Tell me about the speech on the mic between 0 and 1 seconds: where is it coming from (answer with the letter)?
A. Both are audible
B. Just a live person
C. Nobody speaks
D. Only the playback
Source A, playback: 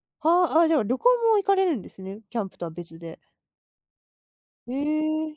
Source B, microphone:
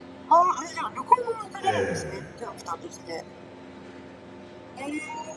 D